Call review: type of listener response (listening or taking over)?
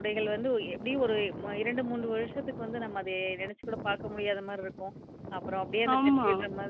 listening